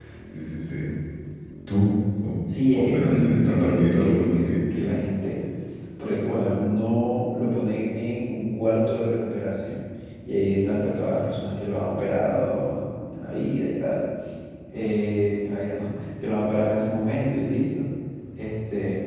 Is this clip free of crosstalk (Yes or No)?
No